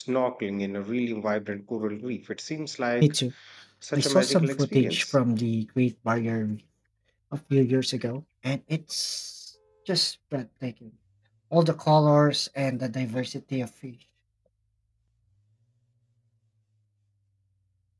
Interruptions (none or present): present